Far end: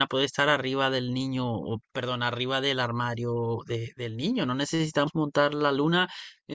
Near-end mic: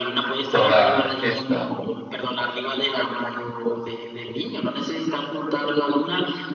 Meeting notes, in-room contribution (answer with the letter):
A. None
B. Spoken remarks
B